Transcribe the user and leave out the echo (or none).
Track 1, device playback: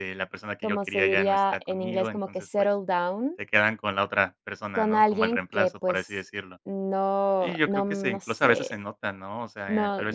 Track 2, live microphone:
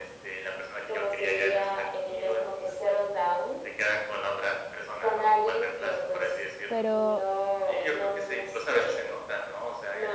pero